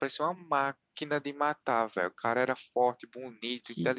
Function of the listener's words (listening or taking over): taking over